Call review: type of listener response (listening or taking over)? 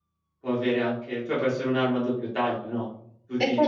listening